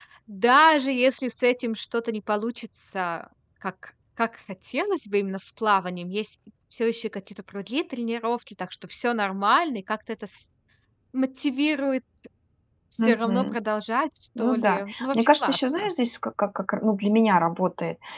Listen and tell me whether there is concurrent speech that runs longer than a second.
Yes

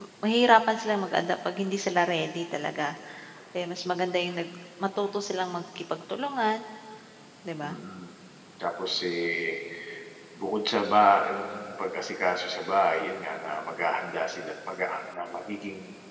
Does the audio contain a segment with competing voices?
No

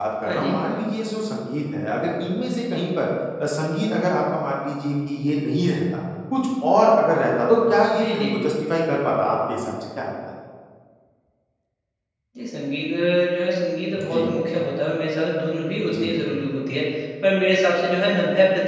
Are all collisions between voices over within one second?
Yes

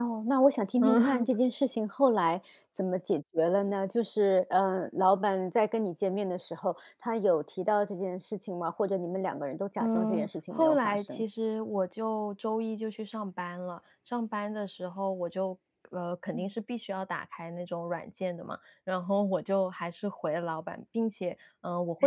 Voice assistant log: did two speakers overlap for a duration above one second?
Yes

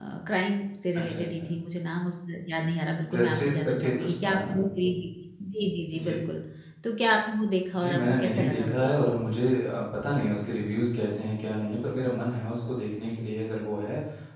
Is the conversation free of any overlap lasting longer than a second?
No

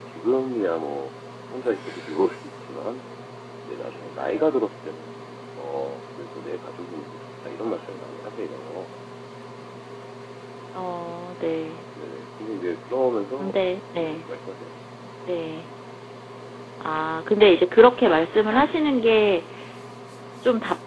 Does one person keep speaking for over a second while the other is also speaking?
No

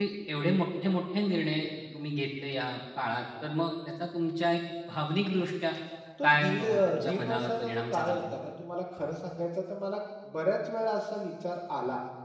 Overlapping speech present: Yes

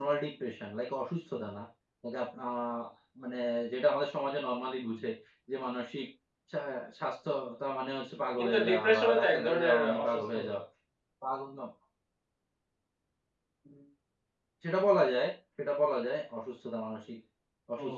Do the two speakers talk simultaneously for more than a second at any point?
Yes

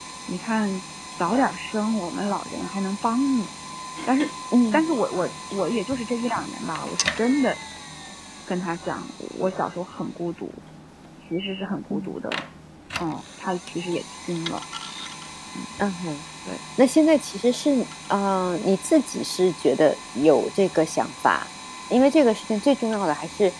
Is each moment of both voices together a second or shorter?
Yes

